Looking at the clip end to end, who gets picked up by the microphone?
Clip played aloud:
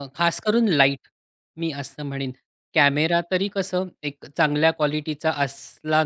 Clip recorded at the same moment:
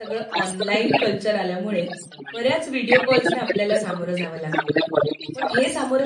both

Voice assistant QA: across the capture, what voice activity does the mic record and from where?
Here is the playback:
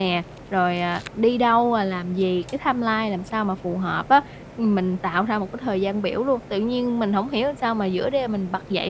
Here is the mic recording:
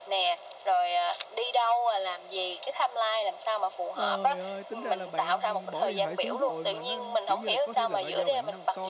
both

